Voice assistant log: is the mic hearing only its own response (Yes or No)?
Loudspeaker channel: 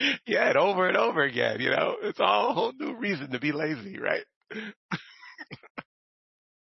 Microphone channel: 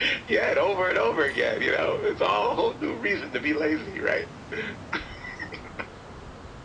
Yes